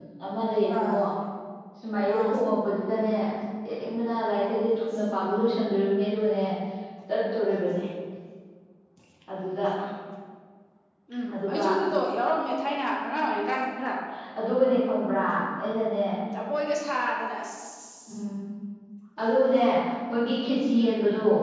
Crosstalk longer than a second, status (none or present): none